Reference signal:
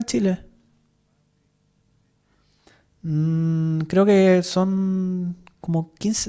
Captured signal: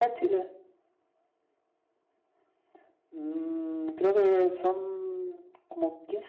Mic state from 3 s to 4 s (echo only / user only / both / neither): echo only